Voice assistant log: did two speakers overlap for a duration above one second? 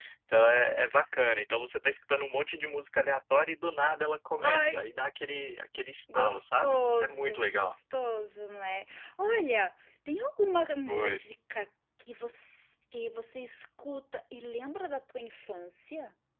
Yes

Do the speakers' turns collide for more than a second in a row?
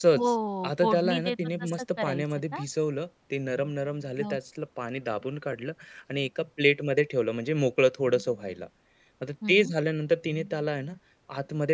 Yes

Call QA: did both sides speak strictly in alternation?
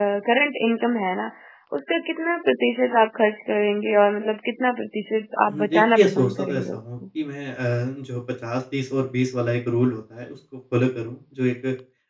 No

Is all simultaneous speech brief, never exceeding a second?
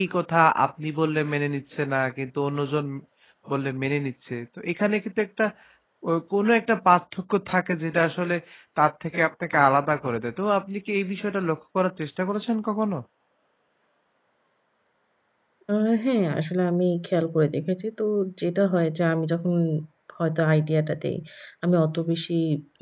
Yes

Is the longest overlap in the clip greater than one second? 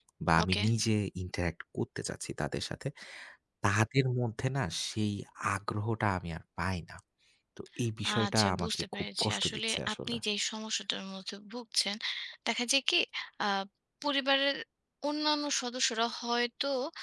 Yes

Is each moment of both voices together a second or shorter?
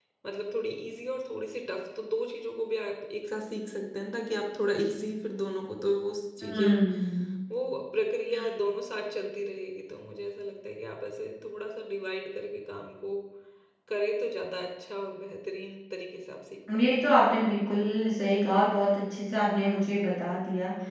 Yes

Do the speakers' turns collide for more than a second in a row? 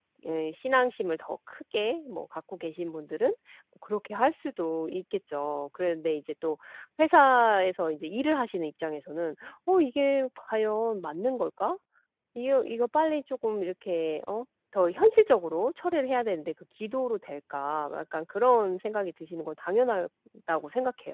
No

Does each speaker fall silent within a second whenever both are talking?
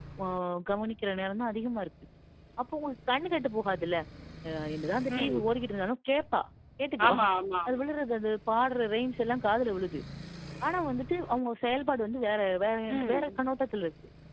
Yes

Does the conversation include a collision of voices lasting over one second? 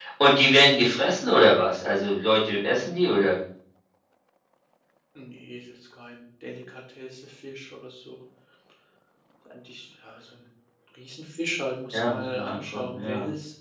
Yes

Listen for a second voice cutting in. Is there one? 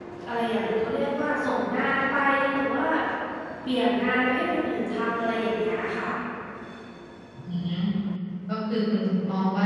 No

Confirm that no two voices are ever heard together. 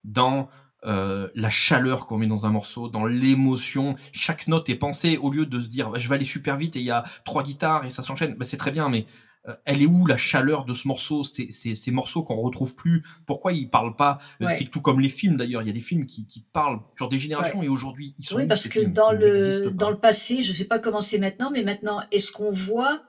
No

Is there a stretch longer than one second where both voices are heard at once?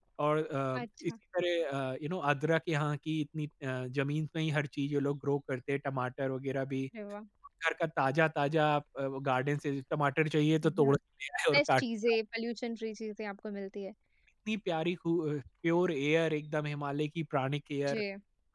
No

